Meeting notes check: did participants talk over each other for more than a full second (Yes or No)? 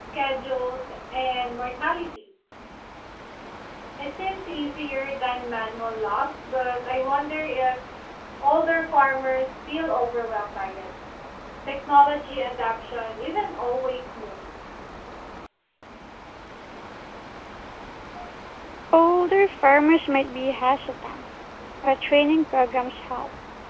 No